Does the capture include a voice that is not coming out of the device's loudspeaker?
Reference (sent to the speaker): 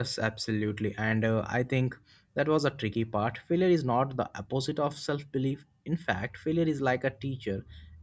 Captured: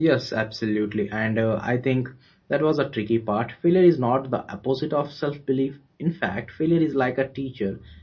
No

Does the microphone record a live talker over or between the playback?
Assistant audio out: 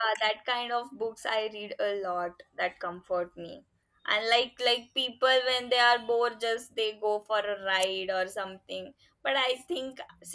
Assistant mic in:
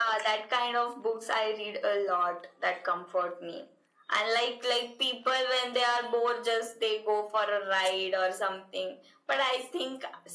No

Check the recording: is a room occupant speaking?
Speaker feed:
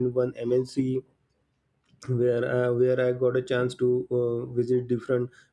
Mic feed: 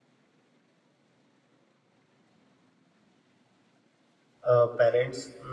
Yes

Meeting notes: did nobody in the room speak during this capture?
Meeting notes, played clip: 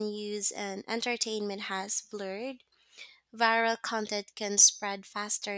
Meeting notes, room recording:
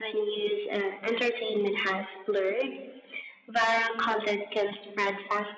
Yes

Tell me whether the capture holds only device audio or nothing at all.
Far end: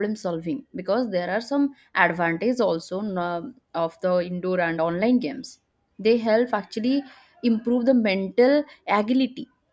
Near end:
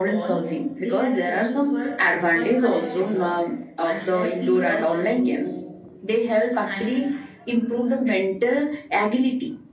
No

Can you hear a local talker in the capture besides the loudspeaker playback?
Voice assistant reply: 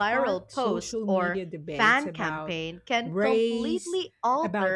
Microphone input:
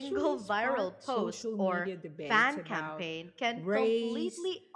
No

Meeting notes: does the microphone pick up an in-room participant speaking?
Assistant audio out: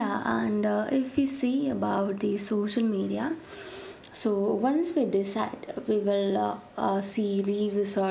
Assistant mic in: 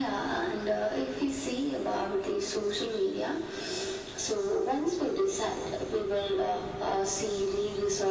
No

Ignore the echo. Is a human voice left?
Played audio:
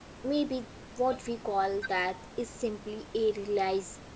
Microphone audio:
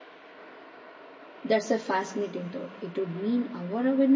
Yes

